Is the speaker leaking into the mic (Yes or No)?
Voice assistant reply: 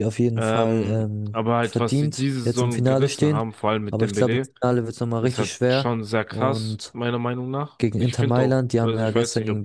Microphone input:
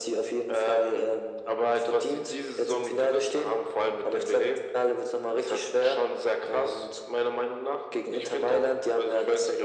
Yes